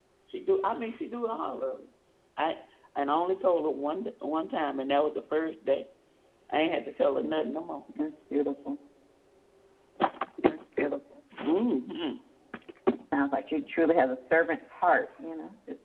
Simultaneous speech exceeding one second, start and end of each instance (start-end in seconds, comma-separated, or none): none